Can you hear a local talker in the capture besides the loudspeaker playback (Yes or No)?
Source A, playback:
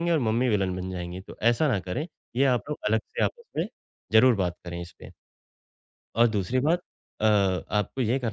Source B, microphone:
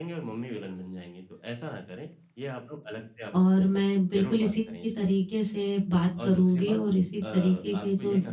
Yes